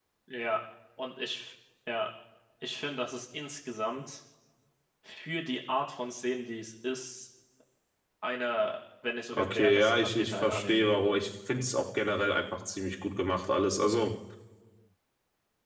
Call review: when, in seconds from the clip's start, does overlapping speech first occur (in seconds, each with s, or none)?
9.3 s